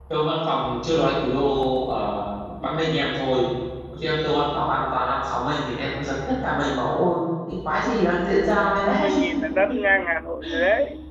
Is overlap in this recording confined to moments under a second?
Yes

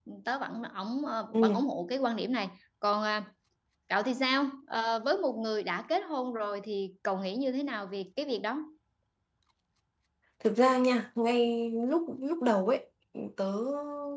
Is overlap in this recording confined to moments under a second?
Yes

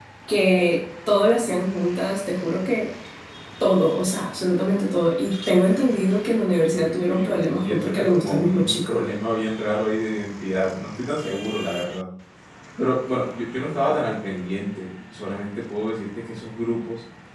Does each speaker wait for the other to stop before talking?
No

